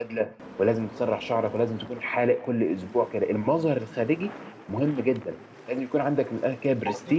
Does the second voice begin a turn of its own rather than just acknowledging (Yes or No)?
Yes